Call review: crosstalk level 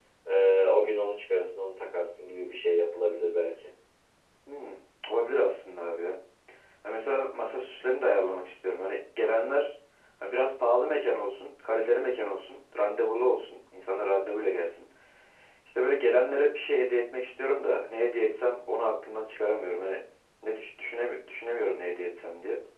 none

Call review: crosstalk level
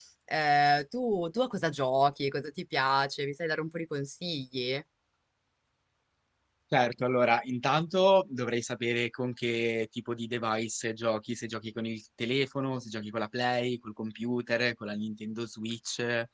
none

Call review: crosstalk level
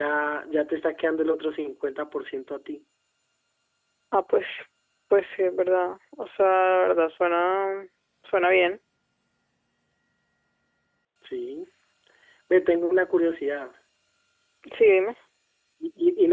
none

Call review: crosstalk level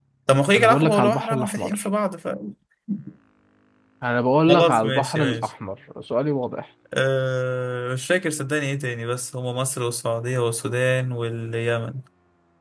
present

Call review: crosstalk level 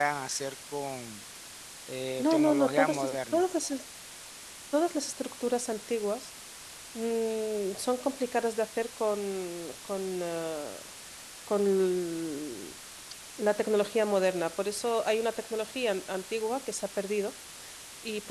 present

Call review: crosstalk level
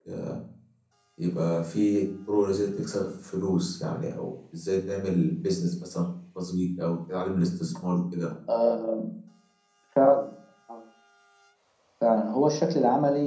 none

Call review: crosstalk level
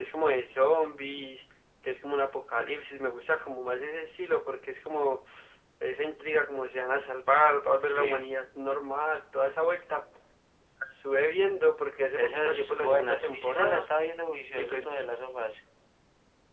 present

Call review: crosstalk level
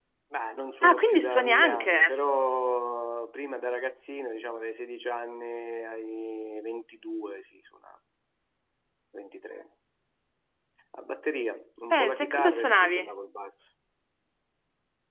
present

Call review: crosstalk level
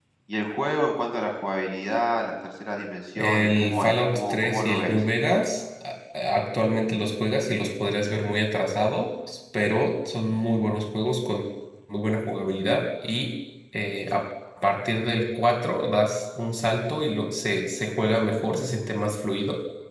present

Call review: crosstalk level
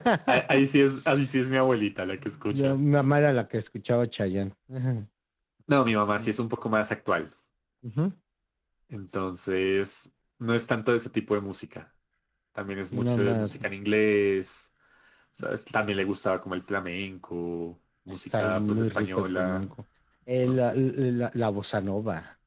present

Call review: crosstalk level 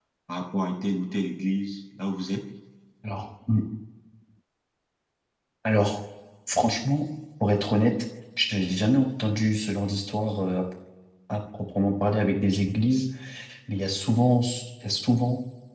none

